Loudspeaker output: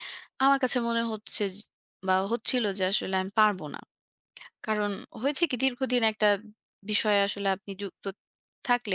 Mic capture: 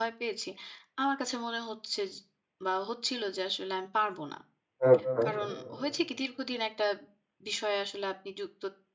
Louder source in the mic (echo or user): user